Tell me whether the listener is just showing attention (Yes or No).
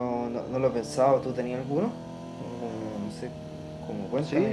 No